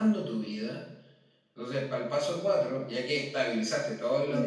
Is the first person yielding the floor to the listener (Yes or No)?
Yes